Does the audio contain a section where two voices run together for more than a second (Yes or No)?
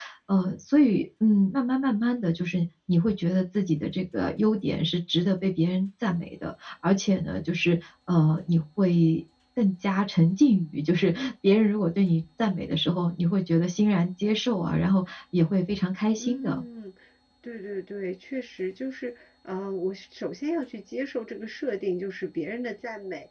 No